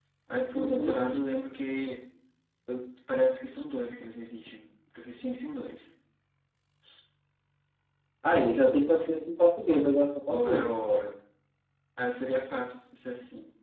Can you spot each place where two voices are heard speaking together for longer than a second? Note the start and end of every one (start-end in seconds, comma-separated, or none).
none